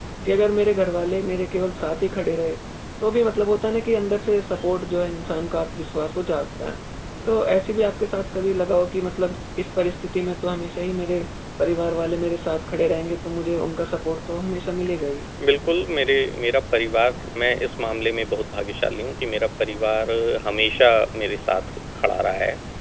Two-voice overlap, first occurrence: none

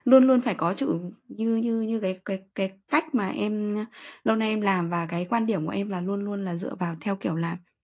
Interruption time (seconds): none

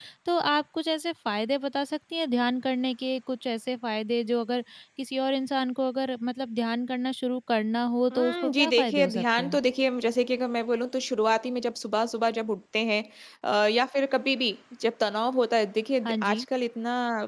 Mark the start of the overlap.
8.1 s

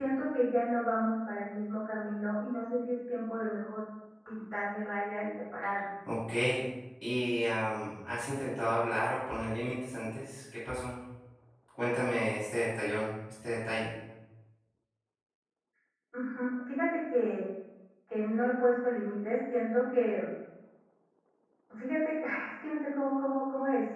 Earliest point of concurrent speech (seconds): none

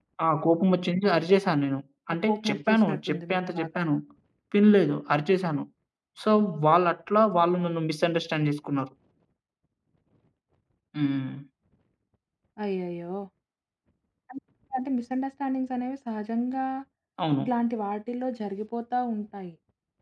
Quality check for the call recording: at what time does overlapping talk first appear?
2.1 s

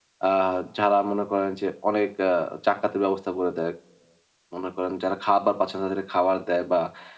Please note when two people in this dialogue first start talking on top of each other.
none

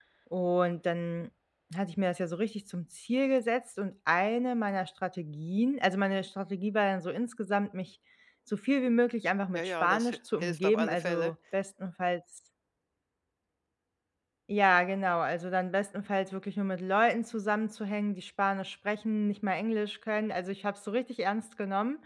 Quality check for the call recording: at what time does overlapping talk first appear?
9.5 s

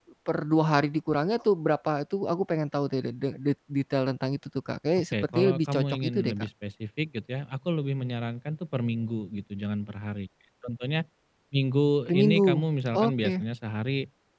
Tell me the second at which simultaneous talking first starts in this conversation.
5.1 s

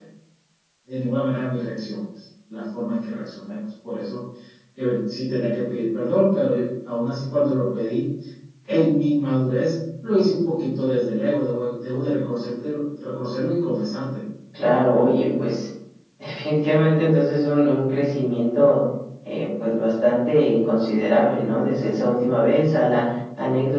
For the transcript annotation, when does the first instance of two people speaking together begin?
none

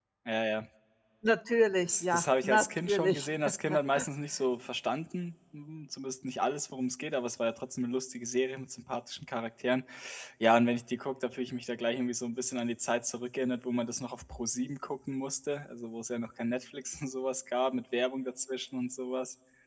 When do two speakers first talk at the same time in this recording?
1.9 s

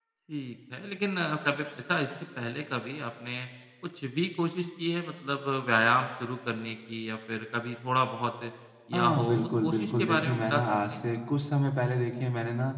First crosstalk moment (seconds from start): 8.9 s

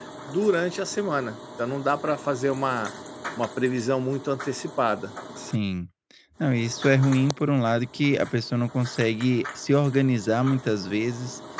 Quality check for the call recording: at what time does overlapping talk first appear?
none

